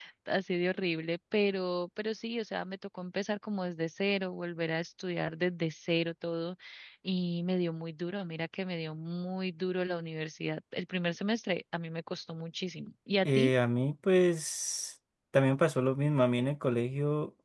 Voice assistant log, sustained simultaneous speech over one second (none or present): none